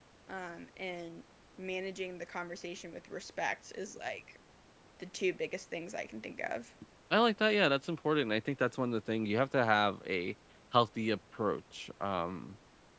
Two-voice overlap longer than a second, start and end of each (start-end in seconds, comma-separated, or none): none